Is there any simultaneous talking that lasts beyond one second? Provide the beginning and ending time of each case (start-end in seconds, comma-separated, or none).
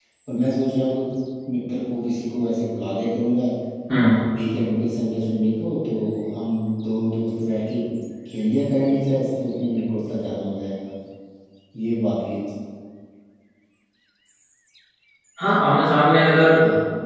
none